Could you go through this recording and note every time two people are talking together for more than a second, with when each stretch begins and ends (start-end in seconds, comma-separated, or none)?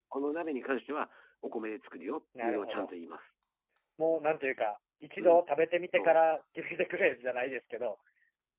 none